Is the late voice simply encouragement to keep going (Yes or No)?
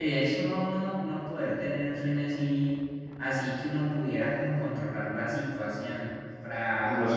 No